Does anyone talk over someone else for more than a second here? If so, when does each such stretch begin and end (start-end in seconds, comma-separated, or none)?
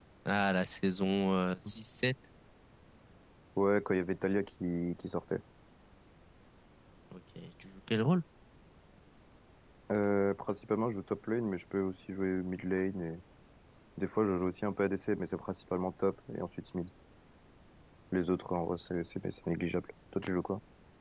none